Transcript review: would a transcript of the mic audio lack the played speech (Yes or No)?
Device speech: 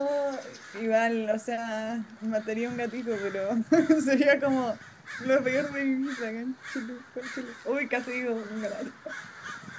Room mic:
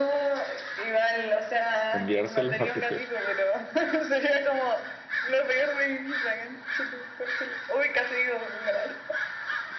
No